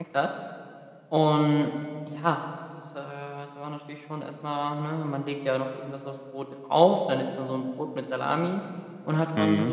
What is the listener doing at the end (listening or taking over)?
listening